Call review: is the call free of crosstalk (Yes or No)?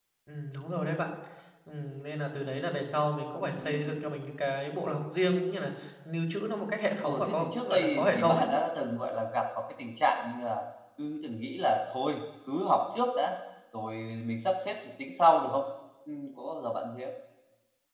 No